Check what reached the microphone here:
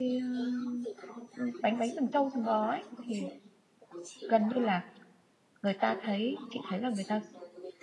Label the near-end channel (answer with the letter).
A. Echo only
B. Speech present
B